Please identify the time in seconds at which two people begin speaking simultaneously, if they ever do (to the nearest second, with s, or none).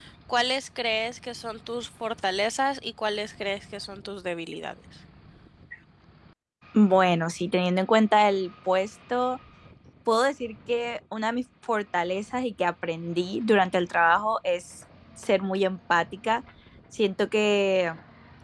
none